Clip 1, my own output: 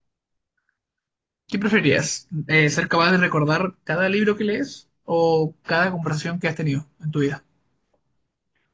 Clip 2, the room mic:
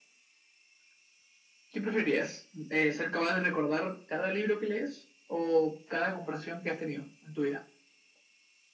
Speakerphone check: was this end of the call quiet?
Yes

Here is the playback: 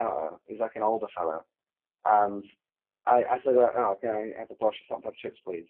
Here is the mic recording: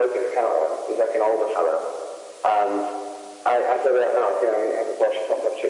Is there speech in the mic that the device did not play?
No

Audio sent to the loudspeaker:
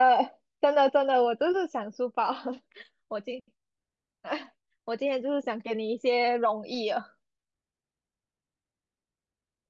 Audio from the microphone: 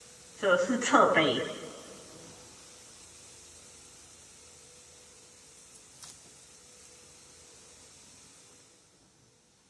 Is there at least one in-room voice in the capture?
Yes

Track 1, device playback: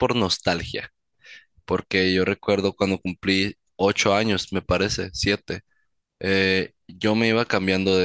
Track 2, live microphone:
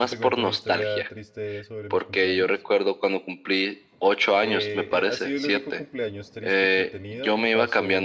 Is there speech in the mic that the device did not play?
Yes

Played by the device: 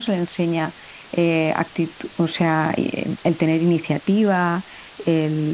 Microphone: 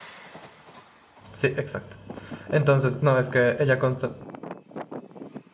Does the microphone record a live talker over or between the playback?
Yes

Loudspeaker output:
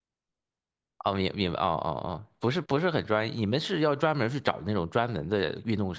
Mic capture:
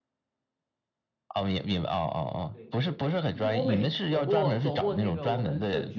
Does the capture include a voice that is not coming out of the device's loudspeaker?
Yes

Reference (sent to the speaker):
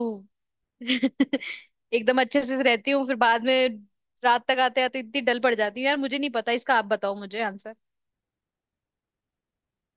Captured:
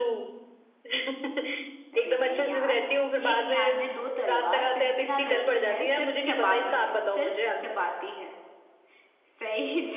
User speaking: Yes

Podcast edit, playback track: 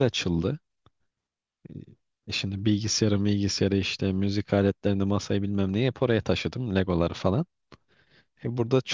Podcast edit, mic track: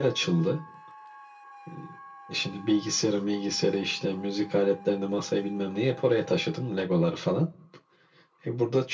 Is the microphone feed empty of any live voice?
Yes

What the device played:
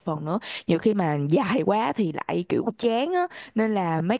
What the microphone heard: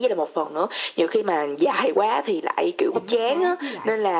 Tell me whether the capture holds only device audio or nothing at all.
No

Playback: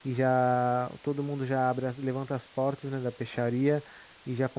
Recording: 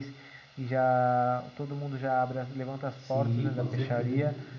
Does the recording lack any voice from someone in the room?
No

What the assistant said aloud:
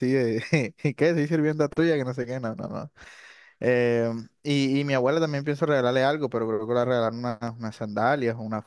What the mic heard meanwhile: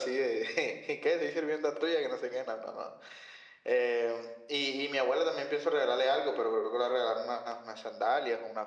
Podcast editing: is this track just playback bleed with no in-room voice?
Yes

